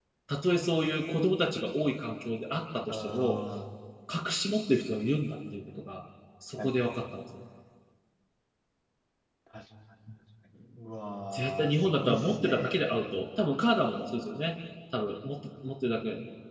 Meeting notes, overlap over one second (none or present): present